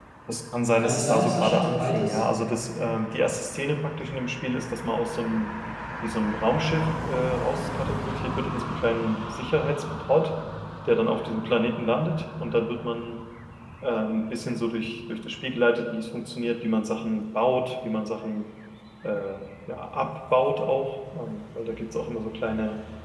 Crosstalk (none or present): present